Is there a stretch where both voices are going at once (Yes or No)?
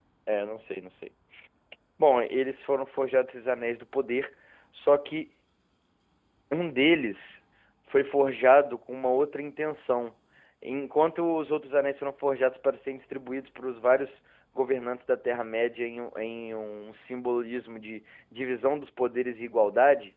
No